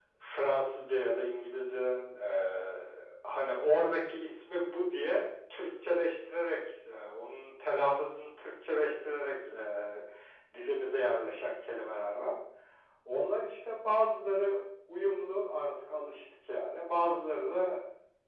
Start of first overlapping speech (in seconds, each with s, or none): none